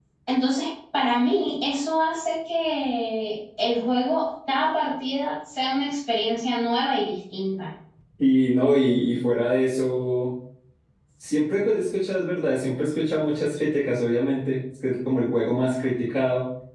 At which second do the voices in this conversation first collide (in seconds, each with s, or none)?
none